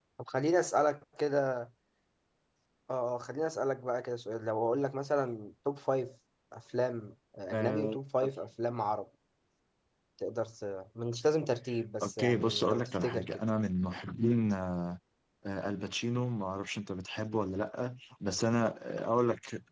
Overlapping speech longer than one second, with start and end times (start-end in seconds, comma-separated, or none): 12.0-13.4